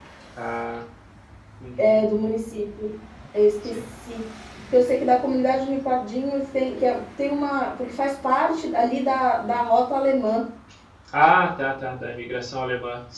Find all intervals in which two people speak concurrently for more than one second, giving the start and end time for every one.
none

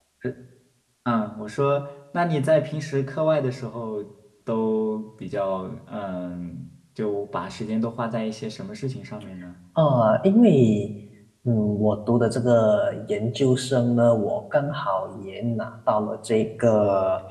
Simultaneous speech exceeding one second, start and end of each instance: none

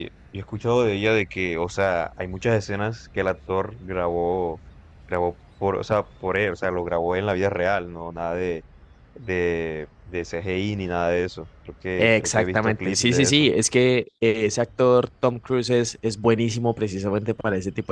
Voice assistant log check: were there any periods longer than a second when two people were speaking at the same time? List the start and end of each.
12.0-13.5

